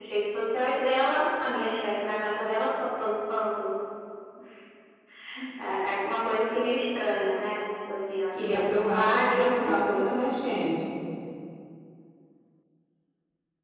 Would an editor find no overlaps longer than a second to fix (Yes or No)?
No